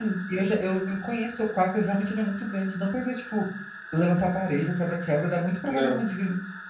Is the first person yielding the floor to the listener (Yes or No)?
No